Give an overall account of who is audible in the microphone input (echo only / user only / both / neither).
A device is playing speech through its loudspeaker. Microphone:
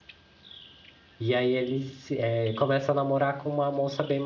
user only